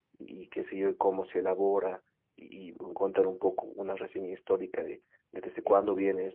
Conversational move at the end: listening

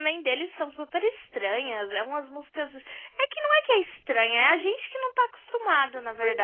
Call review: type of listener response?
taking over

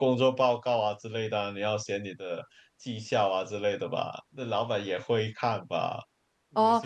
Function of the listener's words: taking over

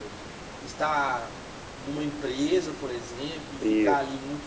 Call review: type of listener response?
listening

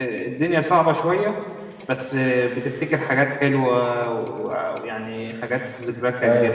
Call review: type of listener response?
listening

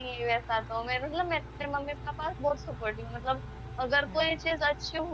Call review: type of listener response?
listening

